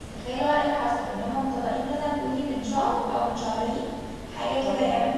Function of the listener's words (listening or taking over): listening